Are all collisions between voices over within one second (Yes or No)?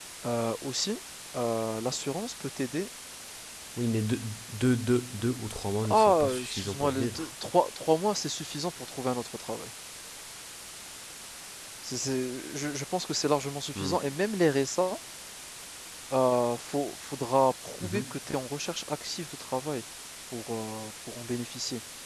No